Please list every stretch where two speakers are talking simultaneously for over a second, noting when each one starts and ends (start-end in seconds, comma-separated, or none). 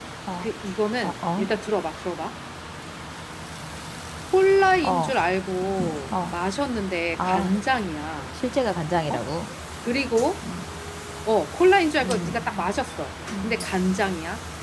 none